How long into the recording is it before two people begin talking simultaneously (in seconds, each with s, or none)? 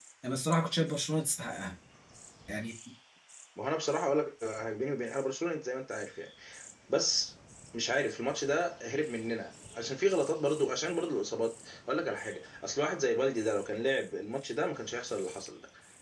none